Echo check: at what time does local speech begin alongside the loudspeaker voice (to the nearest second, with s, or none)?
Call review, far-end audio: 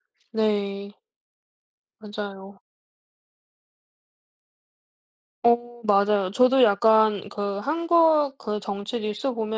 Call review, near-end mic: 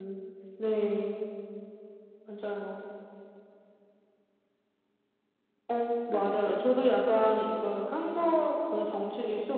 6 s